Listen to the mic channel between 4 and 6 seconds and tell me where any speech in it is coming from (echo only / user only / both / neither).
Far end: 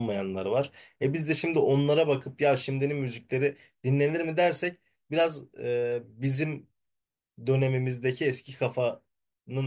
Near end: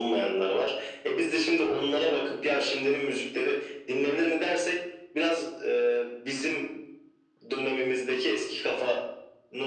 echo only